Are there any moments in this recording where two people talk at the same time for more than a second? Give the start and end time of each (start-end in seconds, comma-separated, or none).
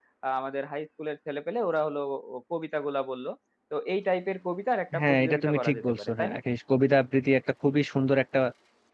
5.0-6.4